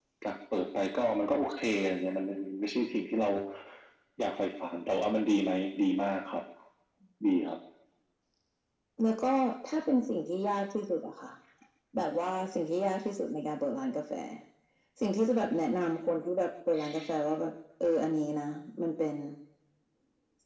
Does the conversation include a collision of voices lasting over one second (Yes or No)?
No